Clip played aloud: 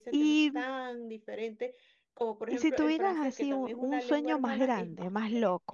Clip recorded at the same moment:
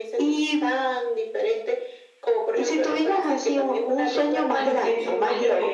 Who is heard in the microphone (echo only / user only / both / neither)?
both